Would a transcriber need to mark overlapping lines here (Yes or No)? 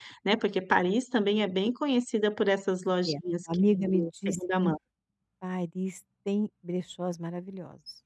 Yes